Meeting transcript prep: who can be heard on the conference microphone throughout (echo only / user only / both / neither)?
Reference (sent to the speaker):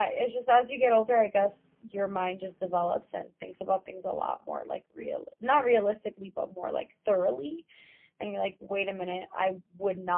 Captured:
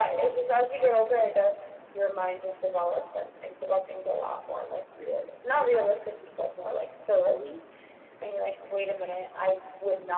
echo only